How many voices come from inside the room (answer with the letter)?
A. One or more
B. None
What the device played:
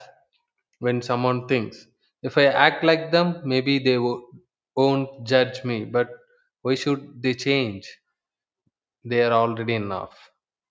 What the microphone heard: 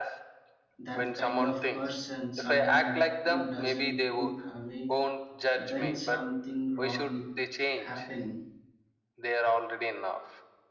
A